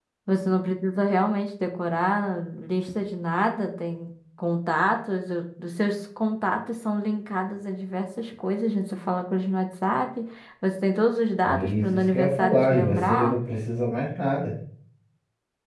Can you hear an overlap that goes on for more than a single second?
Yes, from 11.4 s

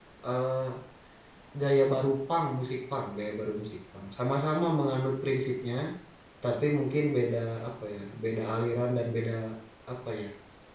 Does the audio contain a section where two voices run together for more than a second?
No

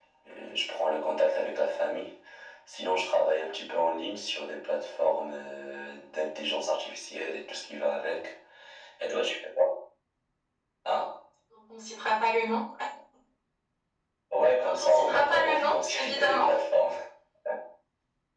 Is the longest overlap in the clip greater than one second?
Yes, from 14.6 s

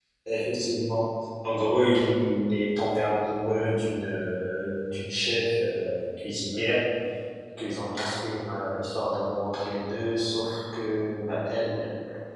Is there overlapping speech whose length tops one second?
No

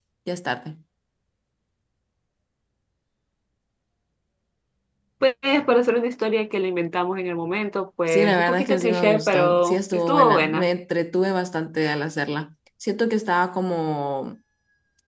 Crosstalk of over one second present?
Yes, from 8.1 s

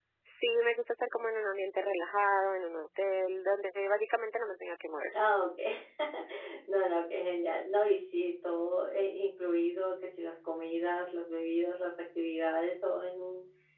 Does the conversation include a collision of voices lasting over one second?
No

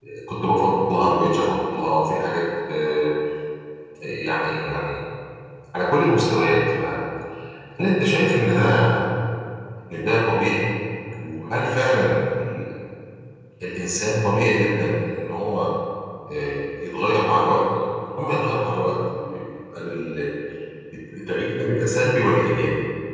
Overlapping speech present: No

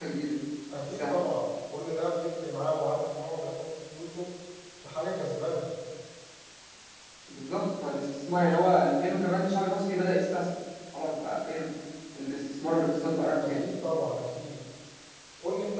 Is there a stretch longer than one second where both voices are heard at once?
No

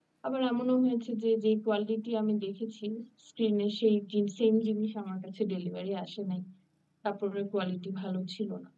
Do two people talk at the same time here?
No

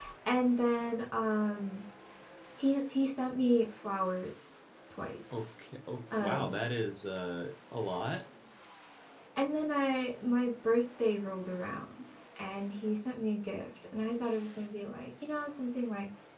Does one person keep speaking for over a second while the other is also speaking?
No

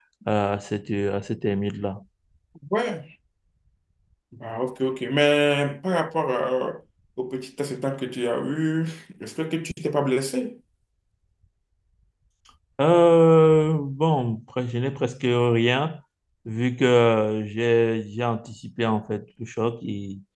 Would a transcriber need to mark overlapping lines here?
No

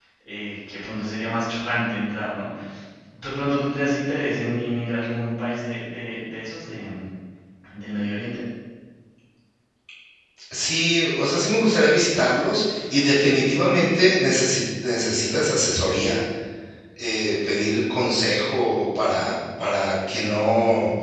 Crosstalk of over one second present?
No

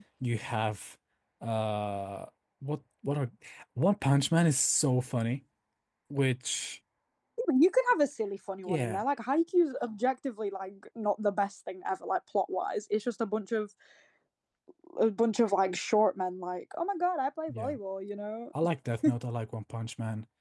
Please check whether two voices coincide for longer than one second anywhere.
No

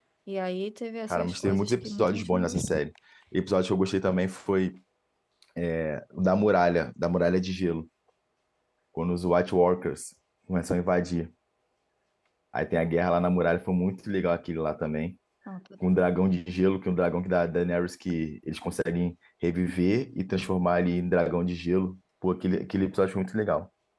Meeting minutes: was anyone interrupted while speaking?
Yes, from 1.1 s

